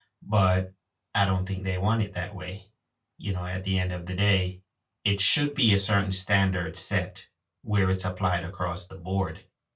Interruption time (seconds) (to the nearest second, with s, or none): none